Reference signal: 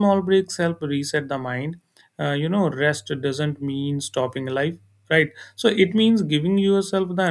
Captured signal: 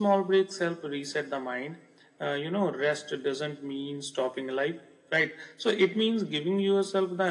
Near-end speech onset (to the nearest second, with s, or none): none